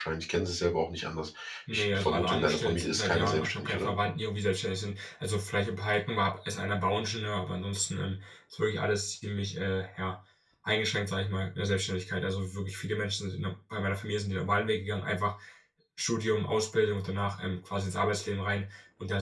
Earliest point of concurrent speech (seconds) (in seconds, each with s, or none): 1.7 s